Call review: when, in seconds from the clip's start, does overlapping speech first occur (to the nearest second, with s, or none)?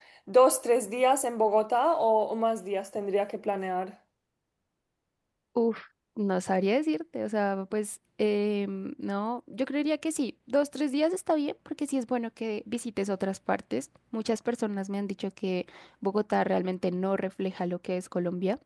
none